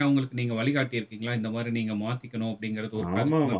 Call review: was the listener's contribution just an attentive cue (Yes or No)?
No